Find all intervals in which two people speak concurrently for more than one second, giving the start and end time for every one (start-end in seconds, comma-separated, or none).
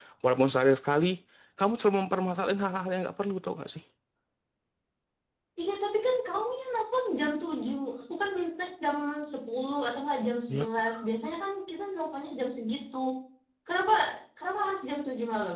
none